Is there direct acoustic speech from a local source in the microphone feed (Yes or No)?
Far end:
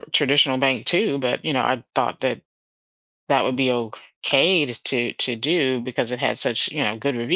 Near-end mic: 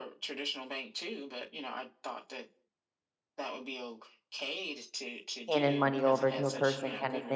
Yes